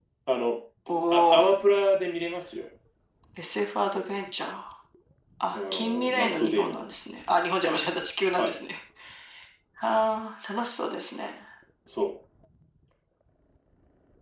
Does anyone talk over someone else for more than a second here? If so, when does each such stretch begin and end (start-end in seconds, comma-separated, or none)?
5.5-6.8